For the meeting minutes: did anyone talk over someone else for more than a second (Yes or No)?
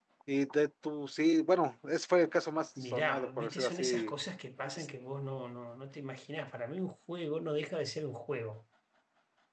Yes